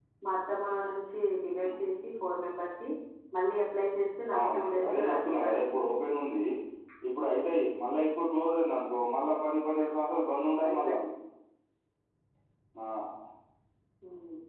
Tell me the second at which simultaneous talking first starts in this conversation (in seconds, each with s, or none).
4.4 s